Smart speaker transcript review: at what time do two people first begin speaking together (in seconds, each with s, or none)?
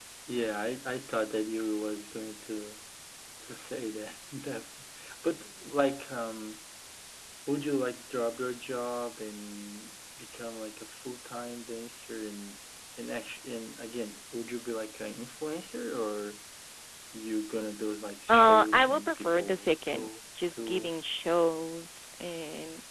18.3 s